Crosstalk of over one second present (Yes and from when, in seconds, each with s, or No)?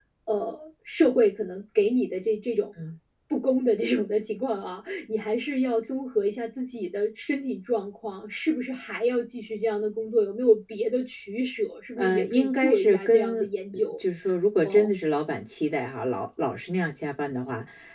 Yes, from 12.0 s